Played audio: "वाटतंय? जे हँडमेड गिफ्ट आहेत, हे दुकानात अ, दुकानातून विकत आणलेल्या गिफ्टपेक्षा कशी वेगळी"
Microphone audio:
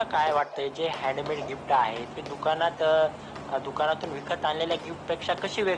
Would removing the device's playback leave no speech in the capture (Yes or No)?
Yes